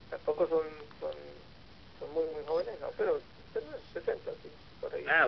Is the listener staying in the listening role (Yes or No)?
No